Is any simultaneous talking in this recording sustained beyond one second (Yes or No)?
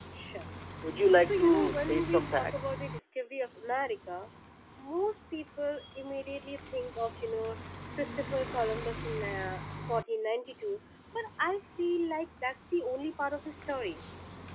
Yes